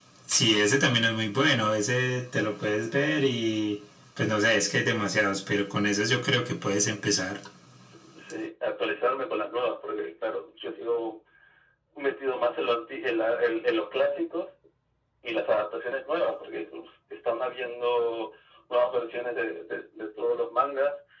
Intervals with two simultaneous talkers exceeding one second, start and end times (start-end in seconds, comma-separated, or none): none